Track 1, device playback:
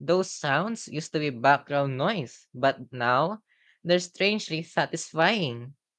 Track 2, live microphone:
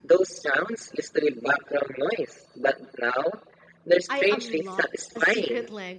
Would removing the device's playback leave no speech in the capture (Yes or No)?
No